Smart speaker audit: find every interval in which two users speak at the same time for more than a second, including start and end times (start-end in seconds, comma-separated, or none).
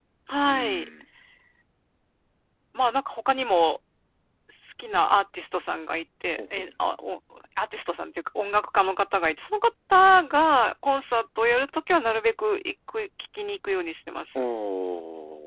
none